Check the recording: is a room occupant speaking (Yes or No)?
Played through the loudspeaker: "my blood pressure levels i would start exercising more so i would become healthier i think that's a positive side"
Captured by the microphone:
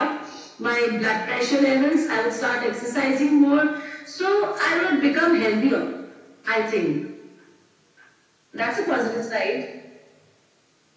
No